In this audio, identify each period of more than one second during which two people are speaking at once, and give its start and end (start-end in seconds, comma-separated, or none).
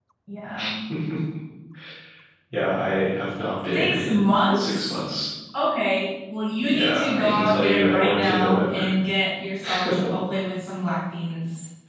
3.7-5.0, 6.6-8.9